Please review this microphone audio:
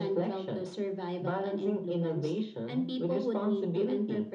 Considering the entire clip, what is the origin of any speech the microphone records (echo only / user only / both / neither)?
echo only